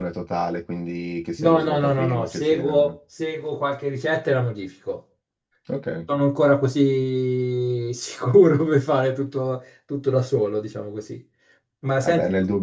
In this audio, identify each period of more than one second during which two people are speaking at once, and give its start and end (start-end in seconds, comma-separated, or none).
1.4-2.9